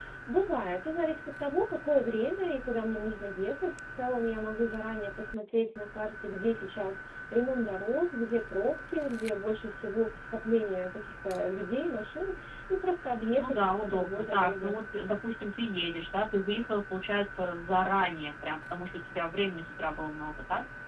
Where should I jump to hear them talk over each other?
13.3 s

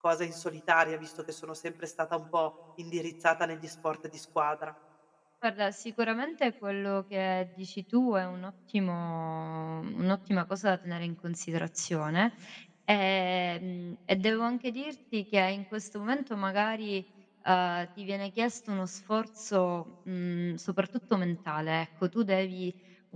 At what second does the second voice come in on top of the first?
none

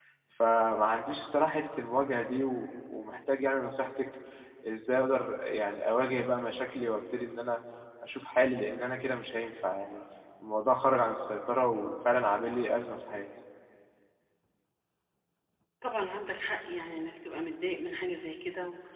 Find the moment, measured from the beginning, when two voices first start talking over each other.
none

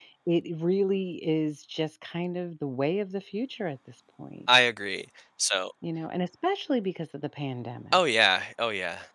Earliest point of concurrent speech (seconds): none

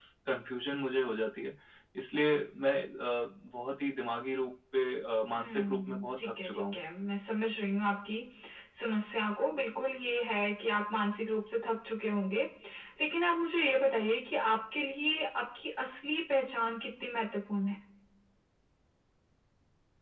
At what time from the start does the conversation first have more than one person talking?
5.4 s

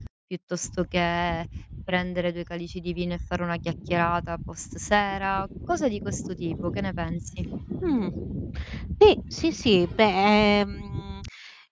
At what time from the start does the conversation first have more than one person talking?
none

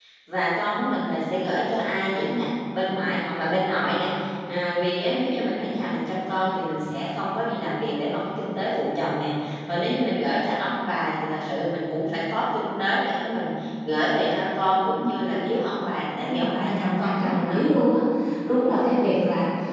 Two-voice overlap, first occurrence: 16.2 s

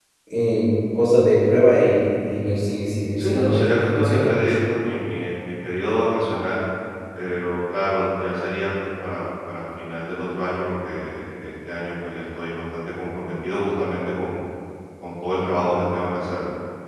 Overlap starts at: 3.2 s

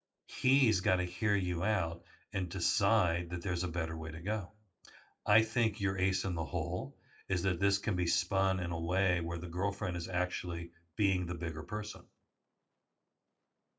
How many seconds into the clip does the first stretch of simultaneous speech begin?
none

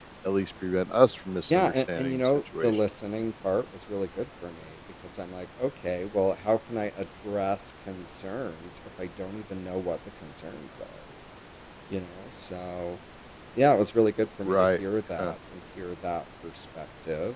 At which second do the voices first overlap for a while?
1.5 s

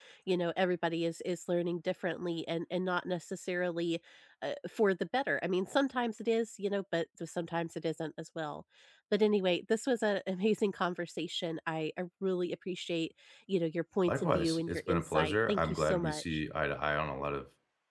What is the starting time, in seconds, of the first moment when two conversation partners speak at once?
14.1 s

